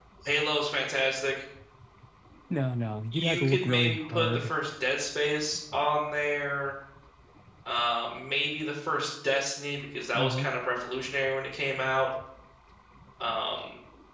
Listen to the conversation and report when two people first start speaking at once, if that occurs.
3.1 s

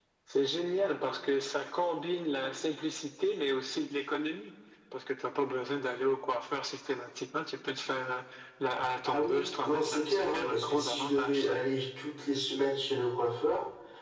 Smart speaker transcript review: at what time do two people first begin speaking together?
9.1 s

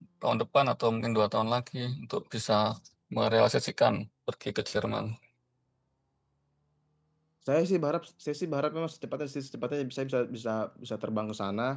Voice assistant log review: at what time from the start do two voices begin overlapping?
none

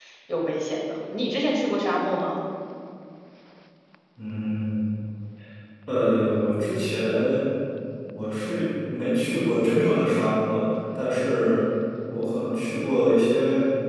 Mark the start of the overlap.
none

